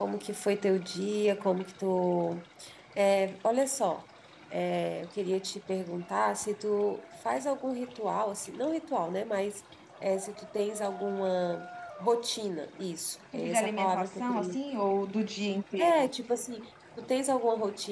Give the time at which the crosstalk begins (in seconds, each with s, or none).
13.3 s